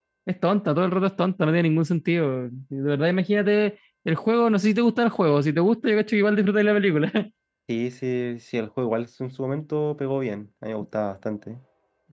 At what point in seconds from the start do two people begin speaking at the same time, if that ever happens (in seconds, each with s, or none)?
none